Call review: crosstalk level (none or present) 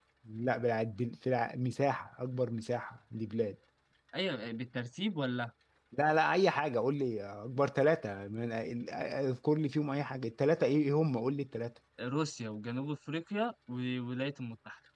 none